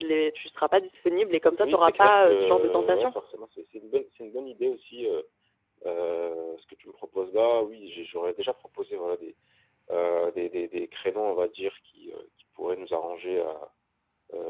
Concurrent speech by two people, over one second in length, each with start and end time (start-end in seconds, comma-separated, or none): 1.6-3.1